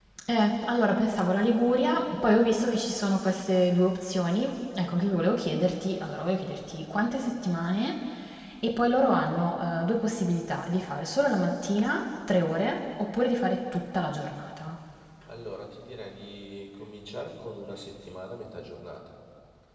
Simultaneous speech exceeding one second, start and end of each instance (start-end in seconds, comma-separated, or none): none